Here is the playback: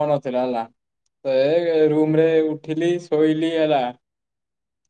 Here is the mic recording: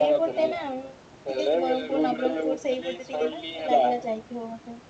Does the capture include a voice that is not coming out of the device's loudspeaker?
Yes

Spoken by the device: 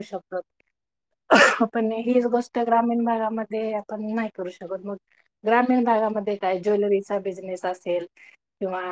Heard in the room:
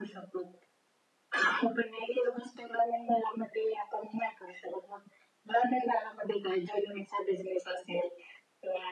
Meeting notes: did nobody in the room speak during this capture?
Yes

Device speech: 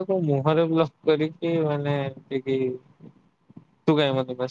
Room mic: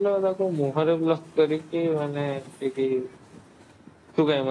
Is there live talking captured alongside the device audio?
No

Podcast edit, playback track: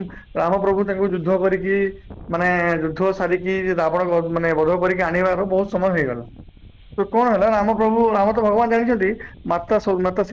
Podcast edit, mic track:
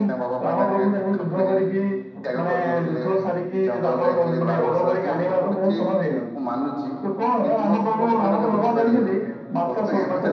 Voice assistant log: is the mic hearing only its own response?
No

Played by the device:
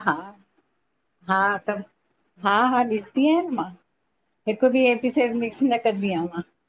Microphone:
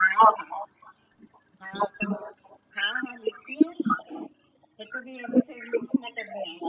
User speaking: No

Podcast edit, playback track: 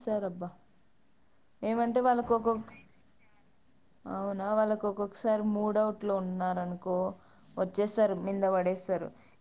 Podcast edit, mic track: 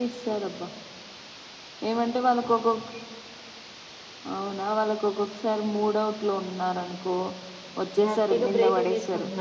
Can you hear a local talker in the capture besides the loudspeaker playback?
Yes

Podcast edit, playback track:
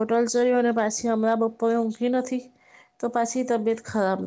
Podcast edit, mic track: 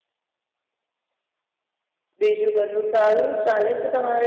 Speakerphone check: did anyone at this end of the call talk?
Yes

